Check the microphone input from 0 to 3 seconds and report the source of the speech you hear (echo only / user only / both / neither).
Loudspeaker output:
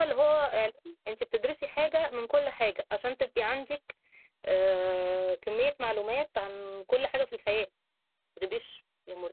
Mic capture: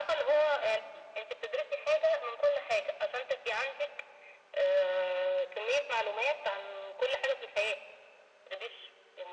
echo only